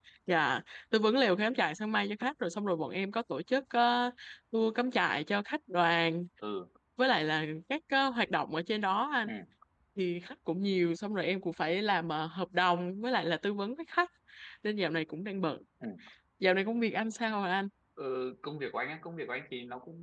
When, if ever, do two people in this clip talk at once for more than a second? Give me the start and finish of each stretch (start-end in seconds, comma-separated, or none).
none